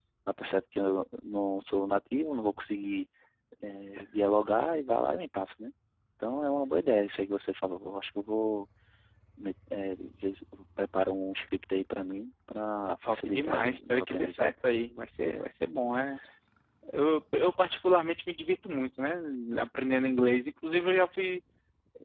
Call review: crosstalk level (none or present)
present